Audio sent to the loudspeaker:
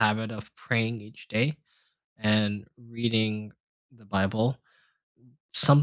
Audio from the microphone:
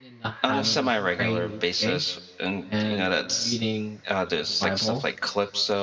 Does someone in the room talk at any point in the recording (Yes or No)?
Yes